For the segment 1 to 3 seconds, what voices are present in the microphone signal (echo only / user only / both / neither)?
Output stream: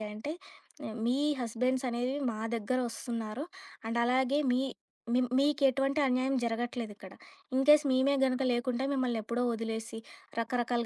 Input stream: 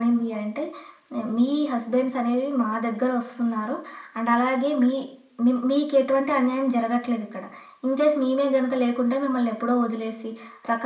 echo only